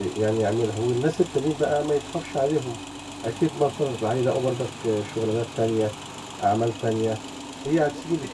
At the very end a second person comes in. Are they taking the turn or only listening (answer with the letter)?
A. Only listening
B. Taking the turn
B